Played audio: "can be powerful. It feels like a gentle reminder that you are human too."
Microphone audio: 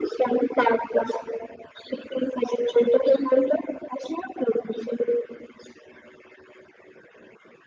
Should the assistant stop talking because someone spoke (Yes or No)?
No